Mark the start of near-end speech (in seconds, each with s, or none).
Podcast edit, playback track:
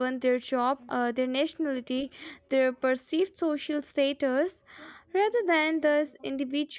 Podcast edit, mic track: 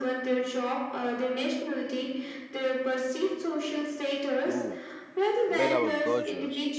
4.5 s